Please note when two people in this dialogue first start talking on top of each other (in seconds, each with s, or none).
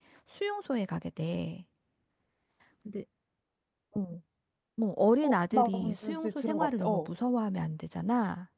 5.2 s